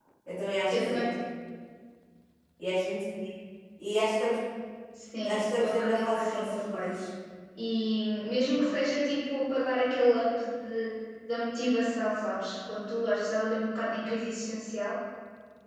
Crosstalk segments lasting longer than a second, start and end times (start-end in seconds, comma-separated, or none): 5.2-6.9